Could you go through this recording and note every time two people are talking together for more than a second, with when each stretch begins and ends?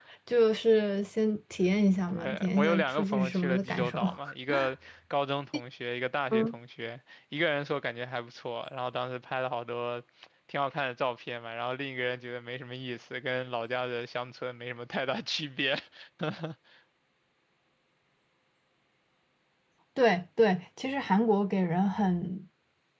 2.1-4.0

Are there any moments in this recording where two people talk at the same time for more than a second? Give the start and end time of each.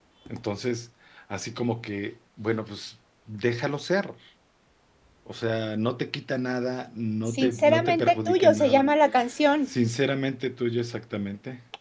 7.3-8.8

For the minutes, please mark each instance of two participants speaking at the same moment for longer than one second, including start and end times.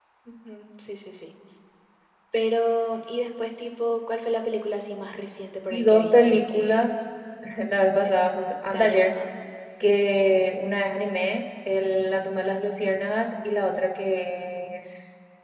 5.7-6.9

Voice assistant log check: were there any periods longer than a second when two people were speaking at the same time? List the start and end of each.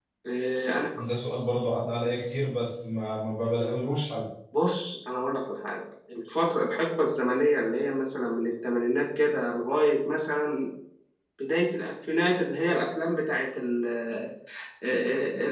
none

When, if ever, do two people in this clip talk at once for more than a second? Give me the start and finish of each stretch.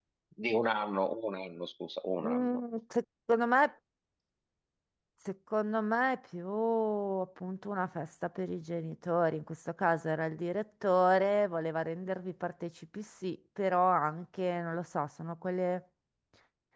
none

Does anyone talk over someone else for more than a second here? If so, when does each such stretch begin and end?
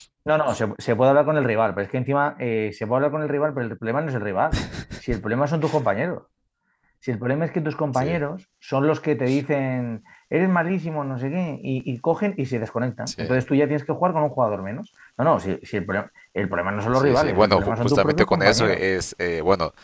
16.9-18.8

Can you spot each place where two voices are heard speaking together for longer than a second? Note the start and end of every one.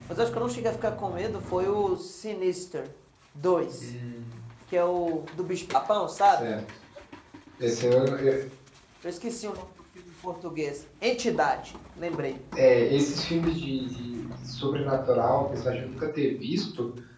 none

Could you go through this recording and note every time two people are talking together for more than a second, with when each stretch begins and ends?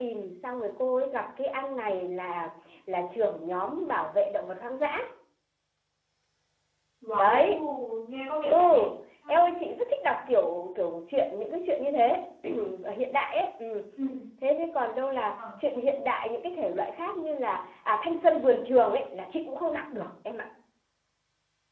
none

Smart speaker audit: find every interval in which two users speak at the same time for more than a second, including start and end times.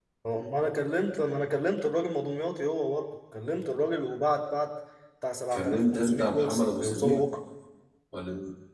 5.5-7.2

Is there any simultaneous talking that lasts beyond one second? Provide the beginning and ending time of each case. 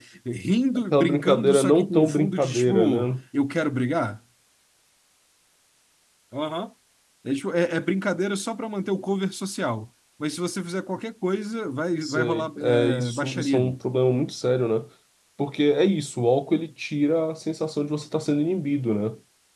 0.9-3.1, 12.0-13.8

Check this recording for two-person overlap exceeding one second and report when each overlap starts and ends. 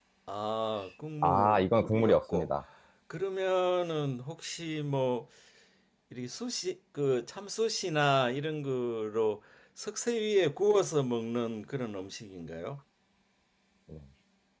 1.2-2.5

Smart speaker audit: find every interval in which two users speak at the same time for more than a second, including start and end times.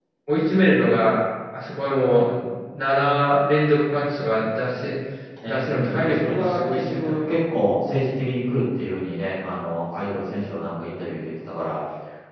5.5-7.4

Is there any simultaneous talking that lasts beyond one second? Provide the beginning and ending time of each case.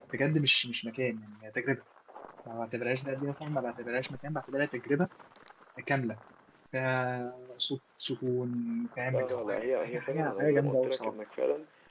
9.1-11.1

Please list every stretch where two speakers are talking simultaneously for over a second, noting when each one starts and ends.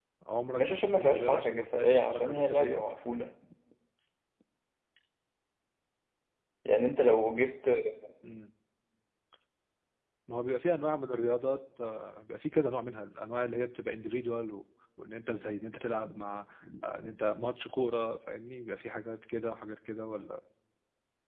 0.6-2.8

